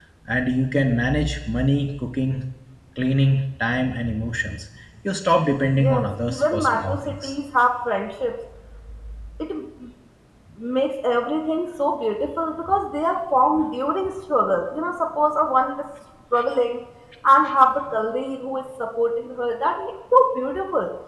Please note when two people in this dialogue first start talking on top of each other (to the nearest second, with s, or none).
6 s